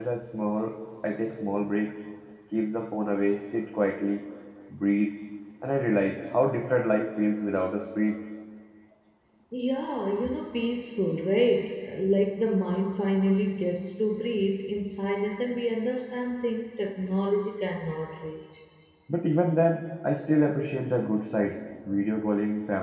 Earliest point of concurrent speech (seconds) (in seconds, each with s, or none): none